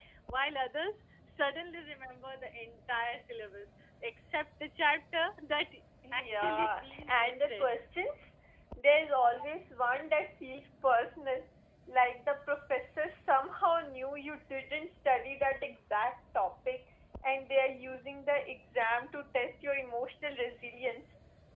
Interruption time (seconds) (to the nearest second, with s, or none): 6 s